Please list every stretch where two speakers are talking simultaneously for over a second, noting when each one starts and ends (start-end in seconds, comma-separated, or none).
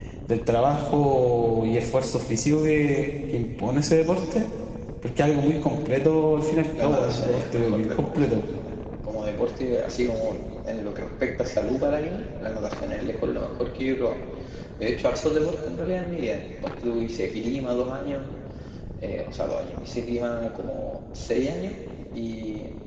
6.8-8.2